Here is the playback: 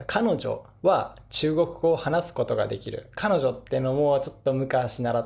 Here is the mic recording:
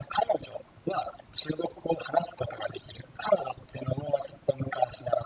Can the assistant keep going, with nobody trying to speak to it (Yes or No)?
Yes